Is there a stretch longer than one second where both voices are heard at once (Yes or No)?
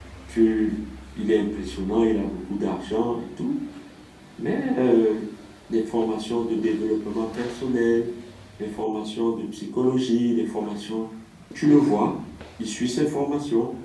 No